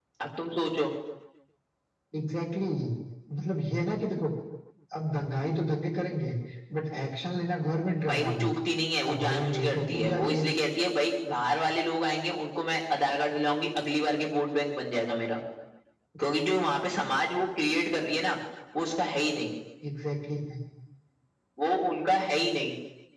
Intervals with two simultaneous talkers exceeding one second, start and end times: 9.1-10.5

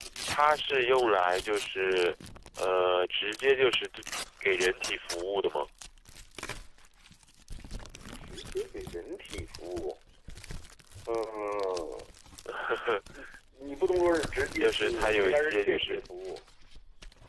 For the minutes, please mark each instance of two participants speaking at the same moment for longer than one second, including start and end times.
14.6-16.0

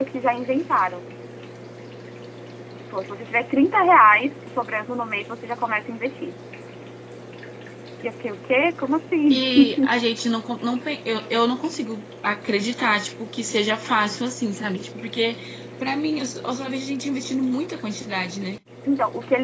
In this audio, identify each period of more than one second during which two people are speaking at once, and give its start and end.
none

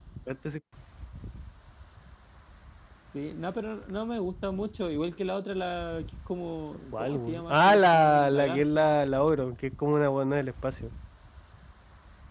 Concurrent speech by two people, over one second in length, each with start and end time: 6.9-8.9

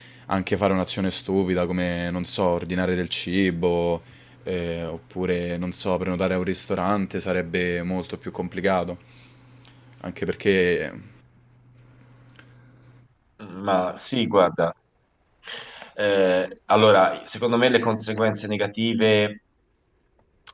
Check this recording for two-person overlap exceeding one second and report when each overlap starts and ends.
none

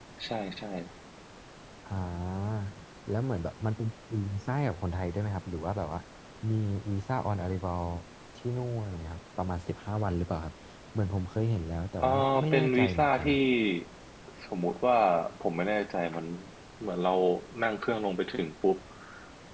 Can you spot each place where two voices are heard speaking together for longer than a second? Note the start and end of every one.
12.0-13.4

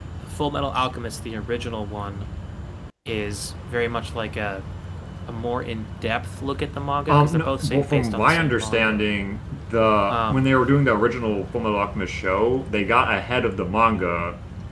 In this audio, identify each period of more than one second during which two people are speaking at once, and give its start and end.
7.1-9.0

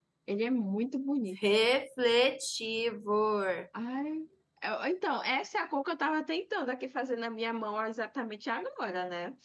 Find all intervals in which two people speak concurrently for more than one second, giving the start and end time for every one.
none

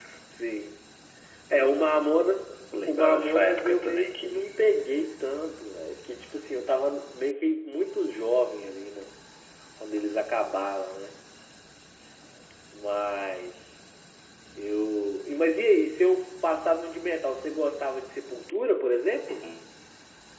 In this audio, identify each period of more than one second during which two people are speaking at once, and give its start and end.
2.9-4.4

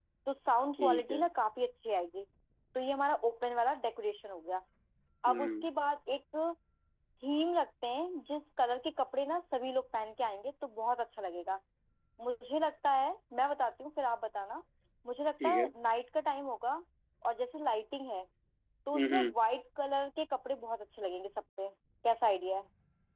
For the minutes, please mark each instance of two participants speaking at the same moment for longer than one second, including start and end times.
none

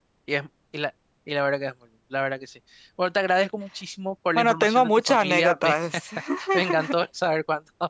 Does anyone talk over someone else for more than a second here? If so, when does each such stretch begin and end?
4.3-5.8

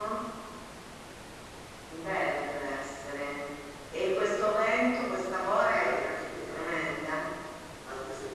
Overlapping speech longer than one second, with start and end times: 5.5-7.0

